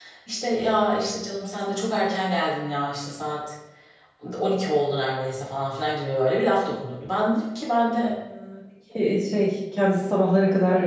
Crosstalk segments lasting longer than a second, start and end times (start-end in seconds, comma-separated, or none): none